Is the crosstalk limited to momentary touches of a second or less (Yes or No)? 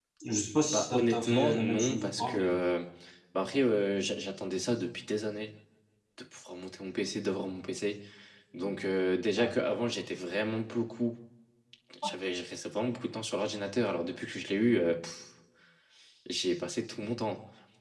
No